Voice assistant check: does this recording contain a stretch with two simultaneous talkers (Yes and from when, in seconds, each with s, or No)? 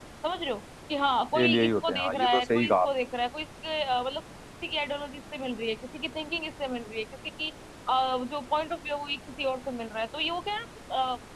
Yes, from 1.3 s